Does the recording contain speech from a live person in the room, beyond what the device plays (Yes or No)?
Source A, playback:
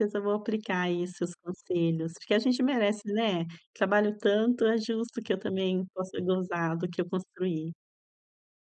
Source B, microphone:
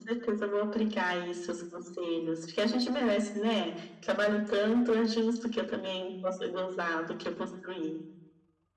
No